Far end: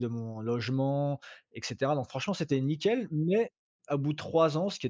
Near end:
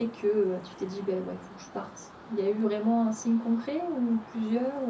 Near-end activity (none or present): present